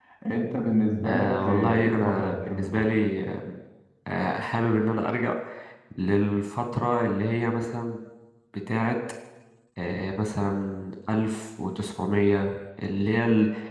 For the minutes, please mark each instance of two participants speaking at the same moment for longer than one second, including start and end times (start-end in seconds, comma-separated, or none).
1.0-2.9